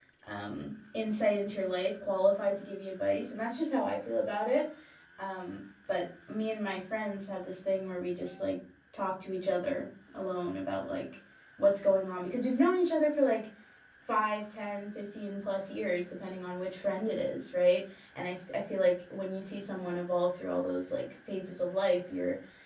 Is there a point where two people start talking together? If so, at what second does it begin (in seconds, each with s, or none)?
none